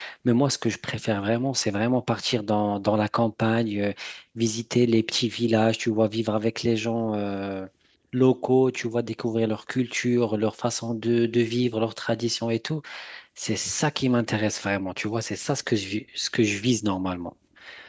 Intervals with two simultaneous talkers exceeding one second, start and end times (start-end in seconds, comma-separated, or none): none